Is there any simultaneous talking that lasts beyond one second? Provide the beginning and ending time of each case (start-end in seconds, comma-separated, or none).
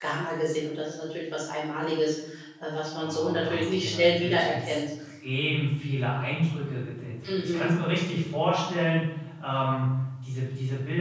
3.0-4.8